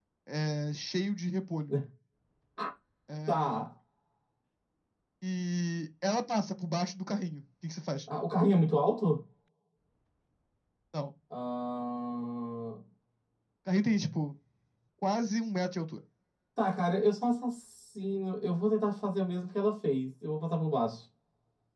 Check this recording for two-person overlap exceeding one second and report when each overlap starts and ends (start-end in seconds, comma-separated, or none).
none